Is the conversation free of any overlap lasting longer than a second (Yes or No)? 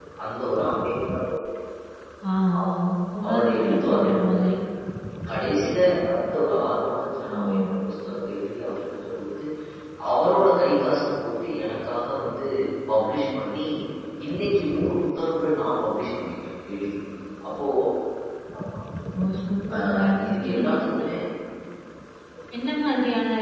No